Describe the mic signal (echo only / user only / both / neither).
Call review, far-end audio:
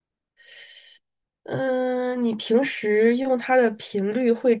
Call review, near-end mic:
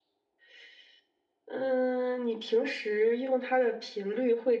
echo only